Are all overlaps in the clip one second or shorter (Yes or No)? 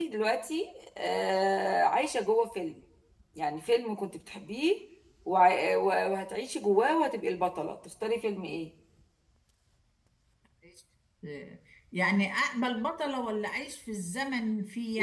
Yes